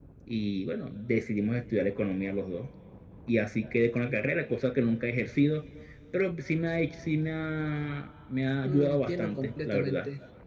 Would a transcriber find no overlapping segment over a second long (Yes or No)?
No